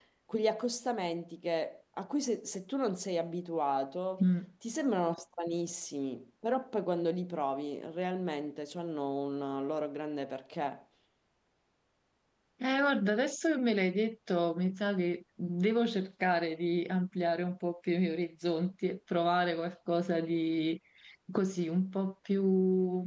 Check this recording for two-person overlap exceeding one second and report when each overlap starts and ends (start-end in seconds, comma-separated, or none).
none